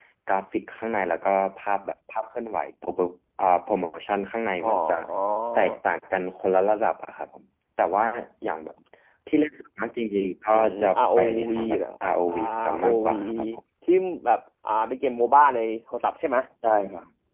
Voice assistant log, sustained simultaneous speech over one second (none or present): present